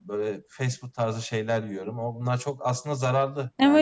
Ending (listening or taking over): taking over